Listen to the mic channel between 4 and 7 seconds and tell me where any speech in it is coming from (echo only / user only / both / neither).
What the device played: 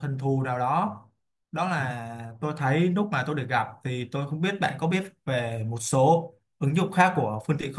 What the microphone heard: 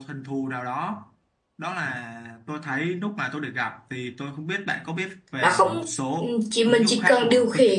both